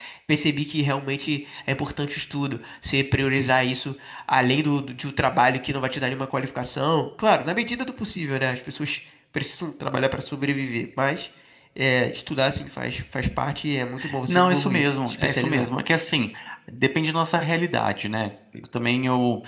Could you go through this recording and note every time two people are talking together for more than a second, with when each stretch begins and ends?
14.3-15.7

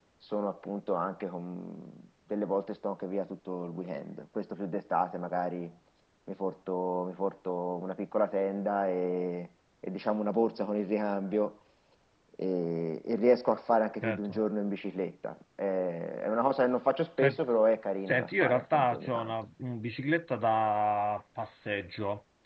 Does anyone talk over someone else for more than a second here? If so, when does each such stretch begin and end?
18.1-19.3

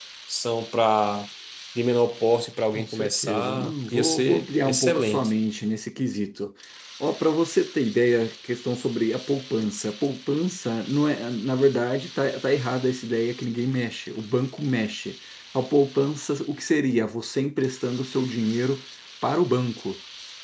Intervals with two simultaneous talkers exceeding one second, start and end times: 2.7-5.3

